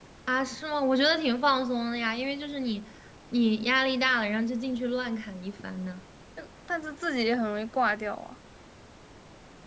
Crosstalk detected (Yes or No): No